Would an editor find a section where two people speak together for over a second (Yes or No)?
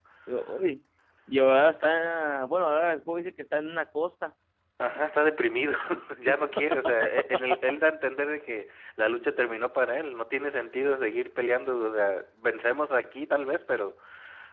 No